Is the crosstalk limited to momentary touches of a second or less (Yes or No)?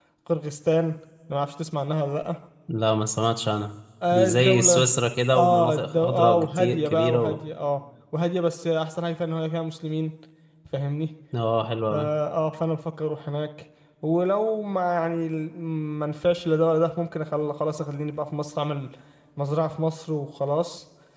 No